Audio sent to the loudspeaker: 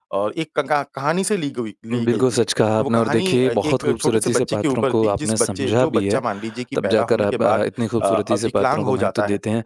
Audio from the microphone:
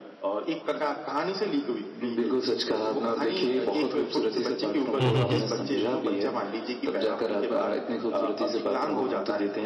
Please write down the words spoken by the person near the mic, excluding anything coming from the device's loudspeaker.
हुँ, हुँ, हुँ।

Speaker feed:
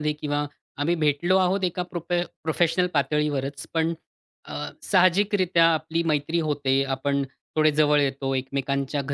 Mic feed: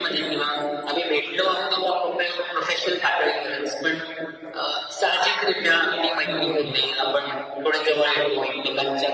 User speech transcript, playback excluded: बरोबर आहे.

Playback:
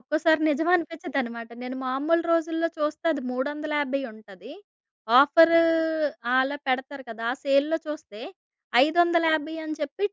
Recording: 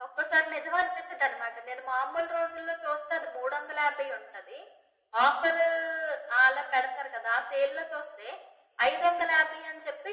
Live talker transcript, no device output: none

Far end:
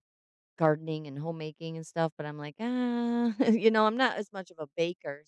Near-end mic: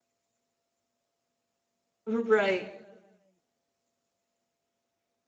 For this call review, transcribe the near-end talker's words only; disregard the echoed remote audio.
Right.

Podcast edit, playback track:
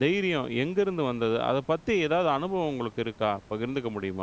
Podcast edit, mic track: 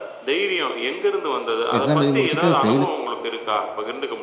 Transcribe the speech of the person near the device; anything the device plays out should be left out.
எக்ஸாம் எழுதி முடிச்சுட்டு ஃபெயிலு.

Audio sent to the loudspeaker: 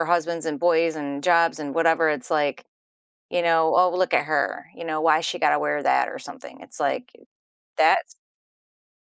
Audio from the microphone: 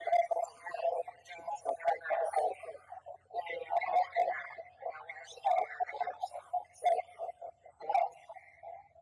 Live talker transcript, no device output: none

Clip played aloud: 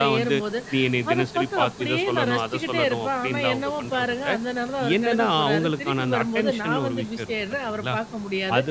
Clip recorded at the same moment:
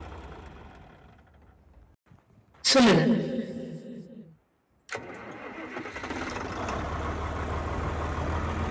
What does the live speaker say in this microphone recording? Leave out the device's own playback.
சொல்லுங்க.

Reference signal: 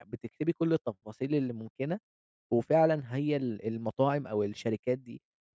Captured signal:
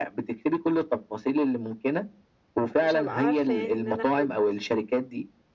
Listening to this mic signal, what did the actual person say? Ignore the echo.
مش هابقى عارفة يعني إن أنا آخُد

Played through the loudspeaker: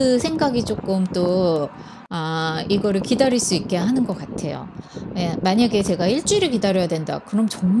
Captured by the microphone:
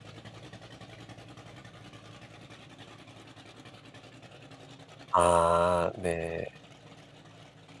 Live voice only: 아 네.

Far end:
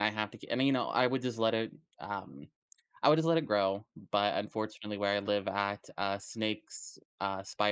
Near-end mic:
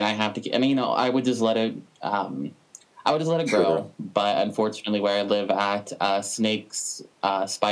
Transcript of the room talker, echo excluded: Sure.

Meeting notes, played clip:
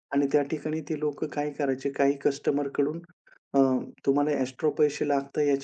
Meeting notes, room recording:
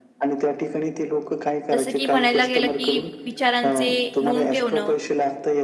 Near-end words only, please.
जसं की म्हणायला गेलं, की विचारांचे नोंद ठेवणं

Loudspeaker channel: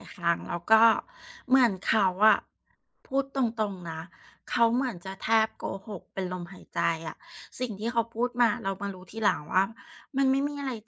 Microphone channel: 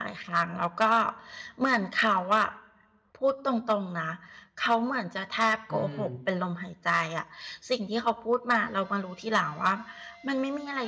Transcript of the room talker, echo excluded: อืม

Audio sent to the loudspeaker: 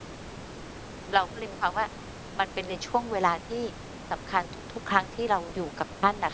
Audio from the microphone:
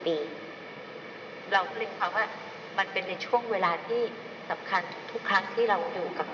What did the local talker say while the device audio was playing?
none

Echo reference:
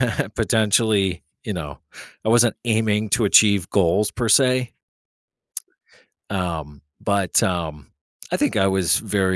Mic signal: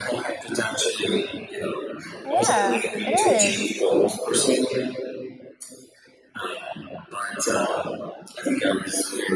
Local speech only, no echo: Yeah, it is.

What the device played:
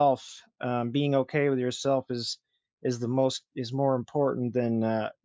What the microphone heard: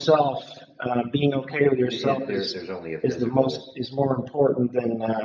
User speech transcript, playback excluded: the i there there's only a physical,

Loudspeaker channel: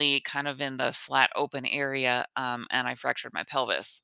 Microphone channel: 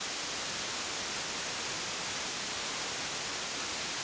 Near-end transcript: none

